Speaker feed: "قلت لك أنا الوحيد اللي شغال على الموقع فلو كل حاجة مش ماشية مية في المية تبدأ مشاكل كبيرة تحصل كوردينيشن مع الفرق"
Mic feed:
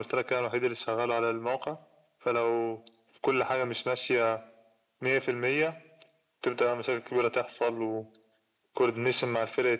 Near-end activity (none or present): none